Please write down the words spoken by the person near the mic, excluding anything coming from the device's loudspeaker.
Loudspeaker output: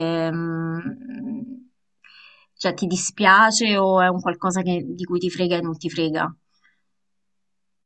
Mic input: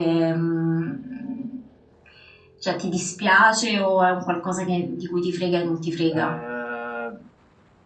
eh,

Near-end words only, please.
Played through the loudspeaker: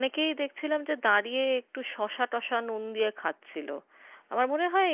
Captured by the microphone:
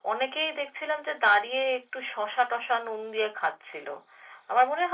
none

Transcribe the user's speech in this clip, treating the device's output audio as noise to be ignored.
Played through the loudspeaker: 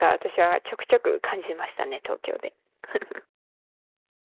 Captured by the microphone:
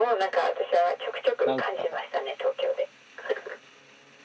なんか

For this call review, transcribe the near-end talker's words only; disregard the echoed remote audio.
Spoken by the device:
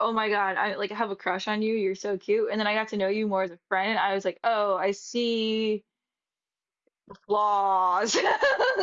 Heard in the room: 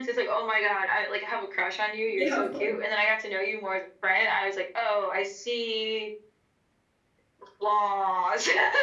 Yeah, of course.

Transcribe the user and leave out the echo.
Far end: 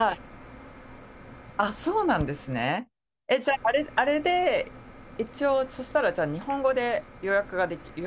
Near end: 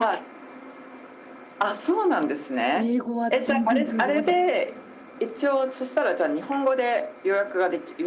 英語は全然通じません。

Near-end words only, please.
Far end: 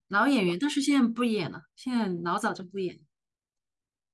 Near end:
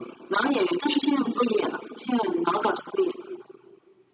none

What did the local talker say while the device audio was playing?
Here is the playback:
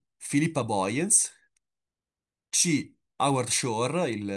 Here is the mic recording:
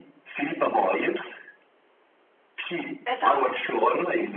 Esatto.

